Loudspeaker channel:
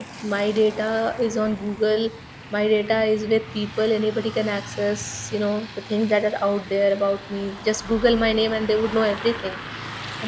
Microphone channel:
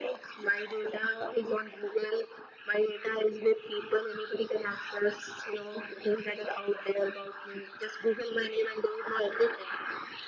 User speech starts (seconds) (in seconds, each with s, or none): none